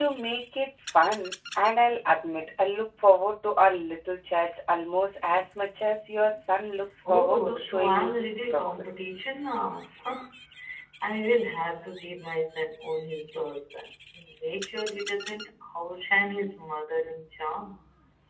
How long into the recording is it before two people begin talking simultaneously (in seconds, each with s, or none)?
7.0 s